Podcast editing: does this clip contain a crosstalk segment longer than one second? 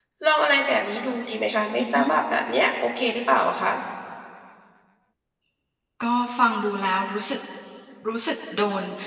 No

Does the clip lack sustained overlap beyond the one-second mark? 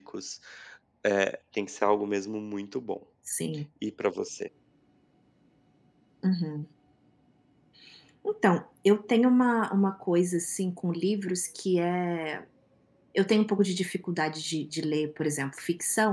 Yes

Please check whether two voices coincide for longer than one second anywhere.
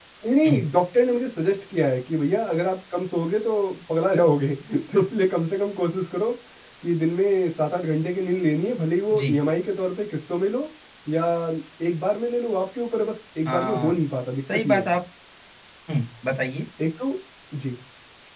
No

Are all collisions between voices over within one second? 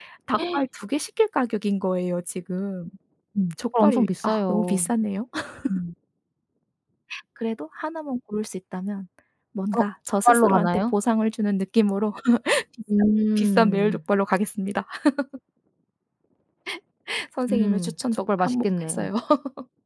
No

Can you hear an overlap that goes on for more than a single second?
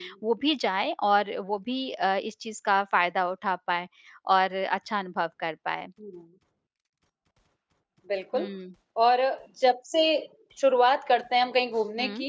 No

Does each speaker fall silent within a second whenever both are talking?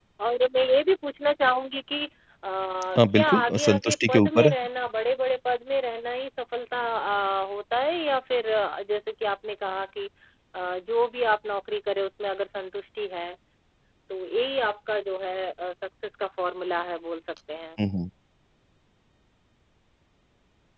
No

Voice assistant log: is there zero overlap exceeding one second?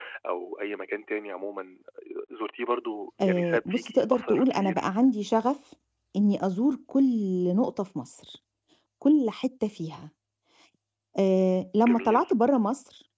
No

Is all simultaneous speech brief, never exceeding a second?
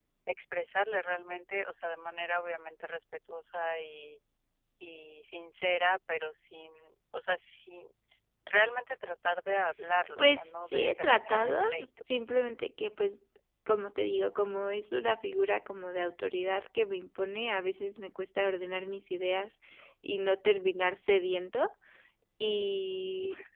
No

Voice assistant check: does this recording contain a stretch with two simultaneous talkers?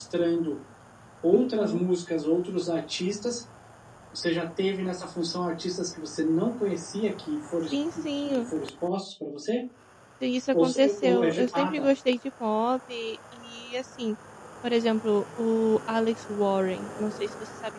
Yes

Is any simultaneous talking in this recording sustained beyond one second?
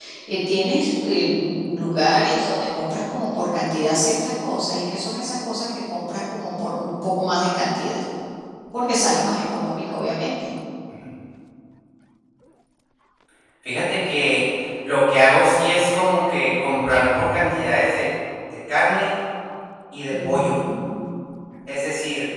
No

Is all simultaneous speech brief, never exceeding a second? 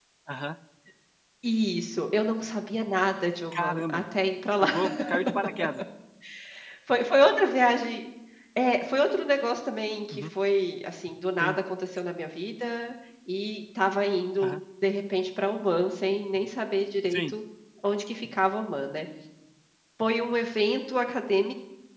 Yes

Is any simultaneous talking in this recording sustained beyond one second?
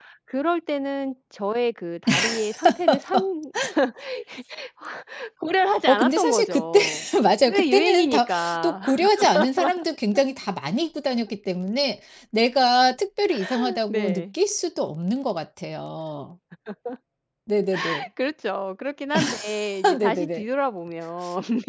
Yes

